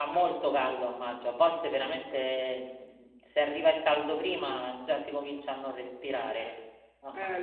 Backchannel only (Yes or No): No